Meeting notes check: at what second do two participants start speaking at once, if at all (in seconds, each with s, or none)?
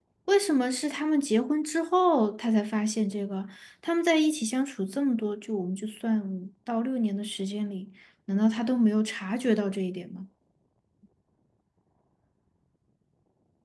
none